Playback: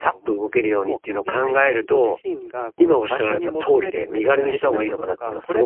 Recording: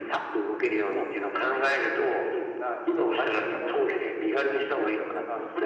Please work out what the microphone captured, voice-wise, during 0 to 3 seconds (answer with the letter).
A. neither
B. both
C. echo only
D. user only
C